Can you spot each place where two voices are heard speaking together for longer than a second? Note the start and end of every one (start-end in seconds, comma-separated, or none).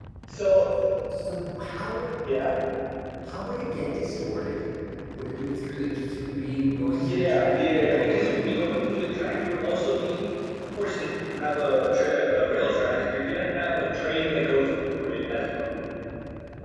6.9-8.4